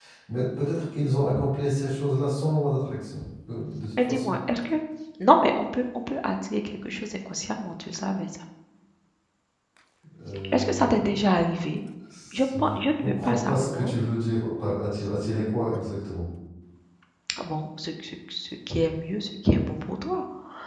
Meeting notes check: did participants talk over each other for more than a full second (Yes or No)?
Yes